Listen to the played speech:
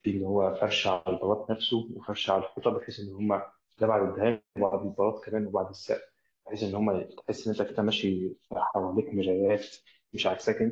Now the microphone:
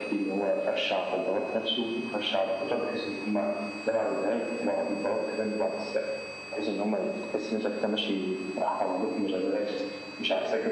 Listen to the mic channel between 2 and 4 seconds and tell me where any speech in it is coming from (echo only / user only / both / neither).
echo only